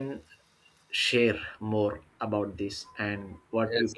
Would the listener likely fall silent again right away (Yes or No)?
No